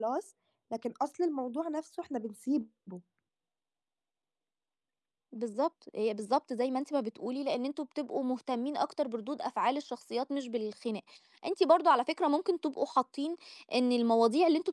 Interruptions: none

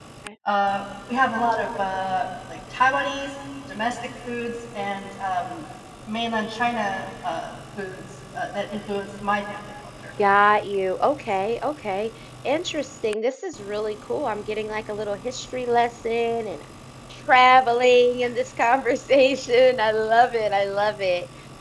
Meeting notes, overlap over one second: none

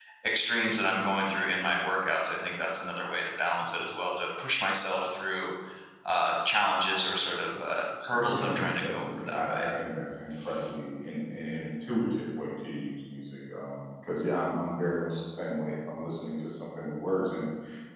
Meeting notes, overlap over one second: present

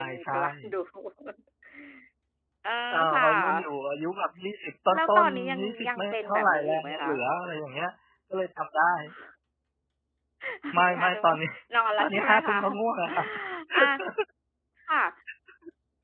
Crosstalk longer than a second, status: present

